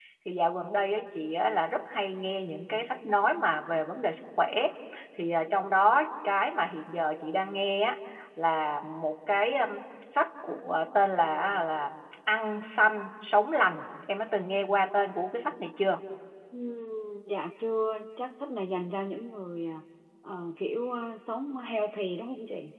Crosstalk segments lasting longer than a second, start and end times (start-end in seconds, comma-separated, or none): none